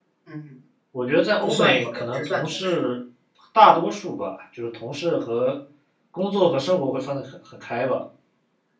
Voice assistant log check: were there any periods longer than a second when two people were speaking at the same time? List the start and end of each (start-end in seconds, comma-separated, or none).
1.4-2.8